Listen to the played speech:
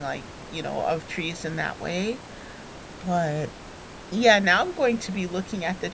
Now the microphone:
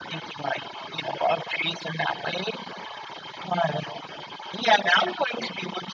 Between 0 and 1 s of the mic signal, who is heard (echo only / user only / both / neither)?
echo only